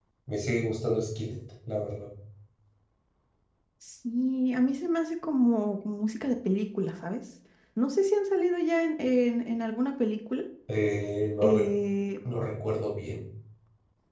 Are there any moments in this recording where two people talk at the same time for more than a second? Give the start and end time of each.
none

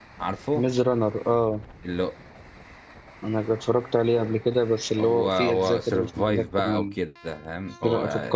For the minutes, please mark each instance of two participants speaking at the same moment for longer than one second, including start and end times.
5.0-6.9

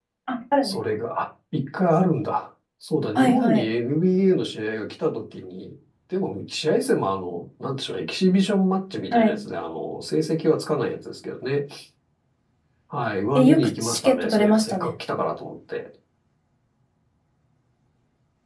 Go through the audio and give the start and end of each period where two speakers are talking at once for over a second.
13.3-14.9

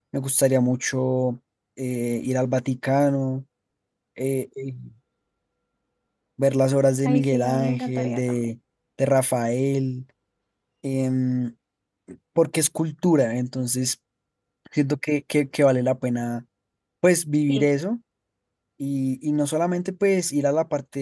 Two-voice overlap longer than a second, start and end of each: 7.0-8.5

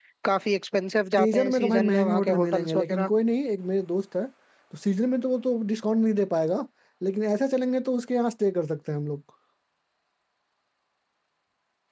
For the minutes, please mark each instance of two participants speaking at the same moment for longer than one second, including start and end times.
1.2-3.1

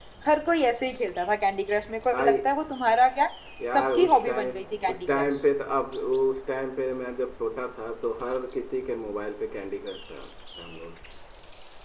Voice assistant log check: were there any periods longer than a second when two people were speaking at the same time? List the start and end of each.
3.7-5.3

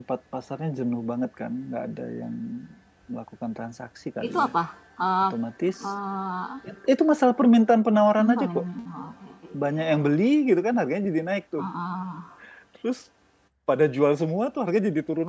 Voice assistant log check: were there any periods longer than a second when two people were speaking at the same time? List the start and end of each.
none

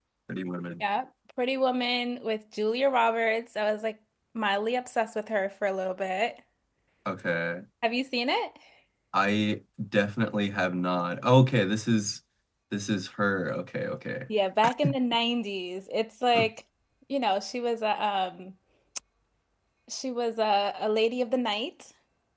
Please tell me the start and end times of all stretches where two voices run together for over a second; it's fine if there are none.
none

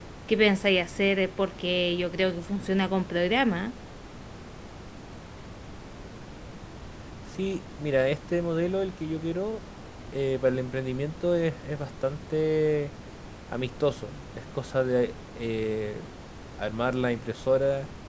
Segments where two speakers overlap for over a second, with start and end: none

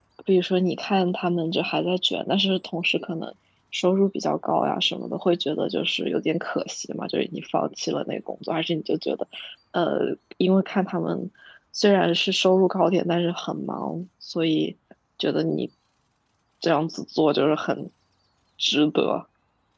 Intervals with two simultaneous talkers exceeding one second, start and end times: none

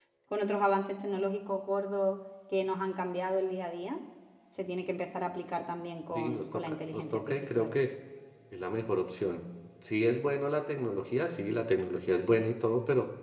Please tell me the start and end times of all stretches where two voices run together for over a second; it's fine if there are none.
6.1-7.7

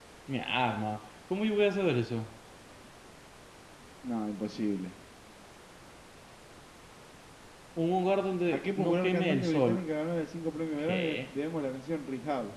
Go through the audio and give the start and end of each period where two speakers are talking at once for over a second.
8.5-9.8

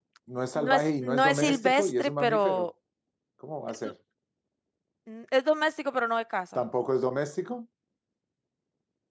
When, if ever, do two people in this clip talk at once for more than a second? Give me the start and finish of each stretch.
0.6-2.7

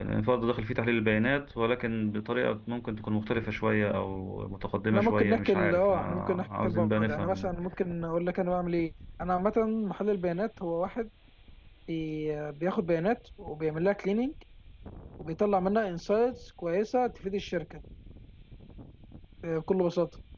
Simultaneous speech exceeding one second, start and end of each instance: 4.9-7.6

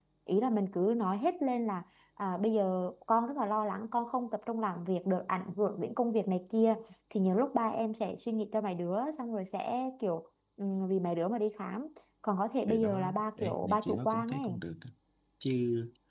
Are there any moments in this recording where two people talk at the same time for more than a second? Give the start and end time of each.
12.7-14.5

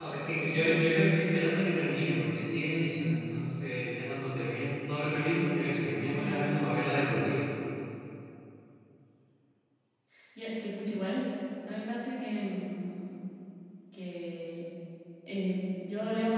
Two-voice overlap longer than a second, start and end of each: none

